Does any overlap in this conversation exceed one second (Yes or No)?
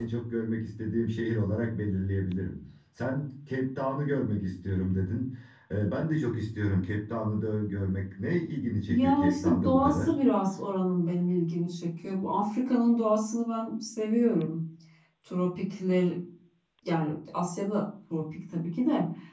Yes